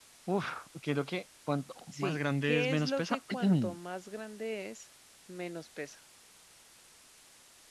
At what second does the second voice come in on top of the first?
1.9 s

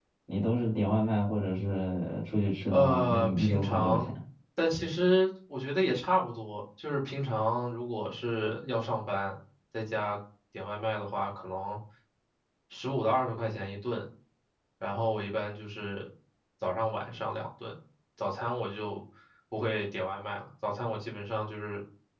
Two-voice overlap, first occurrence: 2.7 s

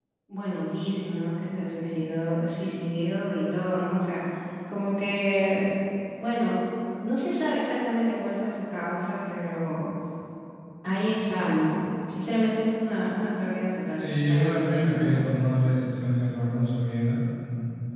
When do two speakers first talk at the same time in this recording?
14.0 s

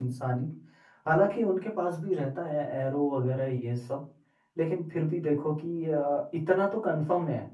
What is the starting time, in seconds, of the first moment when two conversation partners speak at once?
none

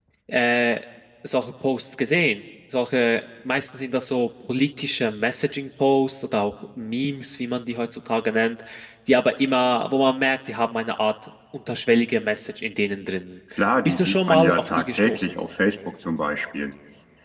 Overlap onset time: 13.8 s

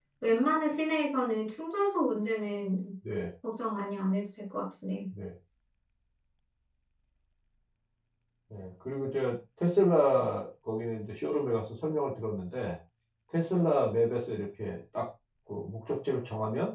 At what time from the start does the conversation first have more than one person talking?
none

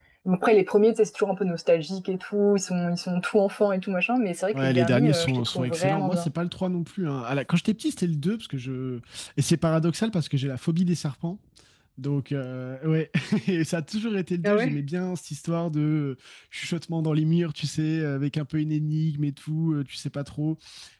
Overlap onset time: 4.5 s

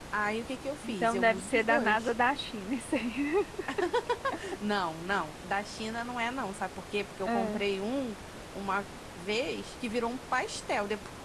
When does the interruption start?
0.8 s

